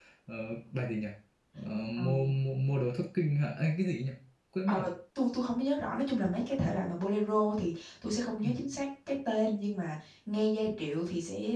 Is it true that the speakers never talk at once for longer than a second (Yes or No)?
Yes